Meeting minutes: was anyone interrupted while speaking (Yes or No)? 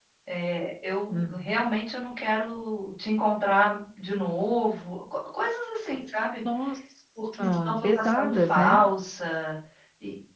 Yes